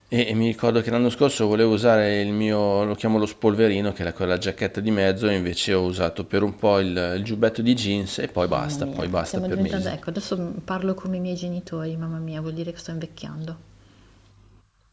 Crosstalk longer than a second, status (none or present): present